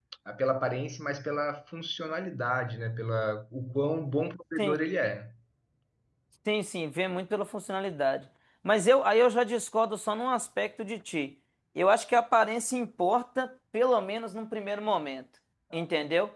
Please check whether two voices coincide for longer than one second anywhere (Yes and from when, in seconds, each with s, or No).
No